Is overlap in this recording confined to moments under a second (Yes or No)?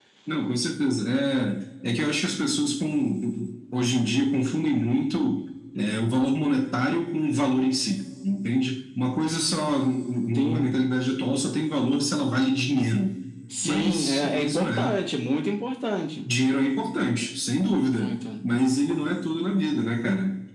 No